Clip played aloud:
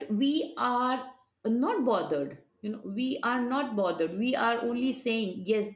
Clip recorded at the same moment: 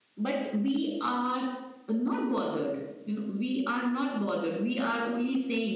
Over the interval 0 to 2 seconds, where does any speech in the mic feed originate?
echo only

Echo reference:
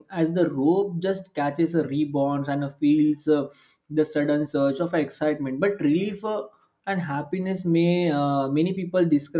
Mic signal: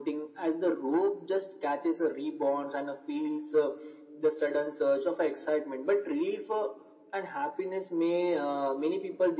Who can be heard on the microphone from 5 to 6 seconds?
echo only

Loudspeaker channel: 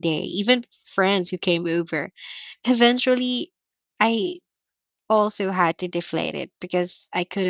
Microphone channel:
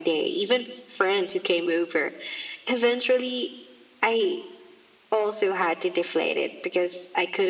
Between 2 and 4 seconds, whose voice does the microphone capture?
echo only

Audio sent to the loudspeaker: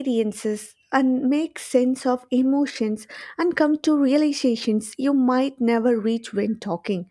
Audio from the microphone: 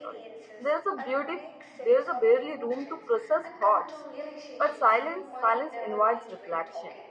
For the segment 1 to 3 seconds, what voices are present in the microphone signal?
both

